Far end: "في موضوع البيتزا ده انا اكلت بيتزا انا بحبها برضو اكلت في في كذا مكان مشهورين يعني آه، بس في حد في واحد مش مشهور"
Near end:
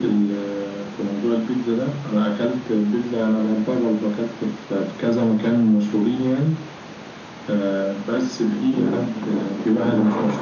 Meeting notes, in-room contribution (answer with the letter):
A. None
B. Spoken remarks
A